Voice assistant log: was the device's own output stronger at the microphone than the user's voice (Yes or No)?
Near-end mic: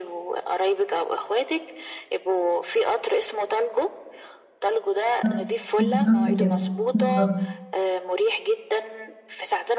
No